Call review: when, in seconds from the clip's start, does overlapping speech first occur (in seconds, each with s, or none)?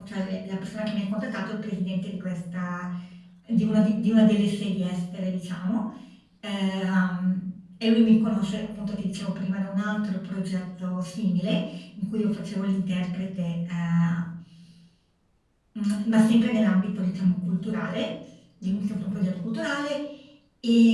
none